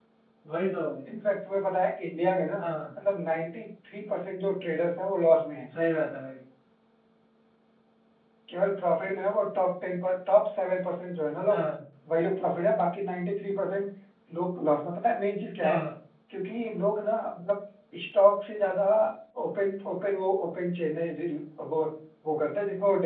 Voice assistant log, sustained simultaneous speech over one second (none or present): none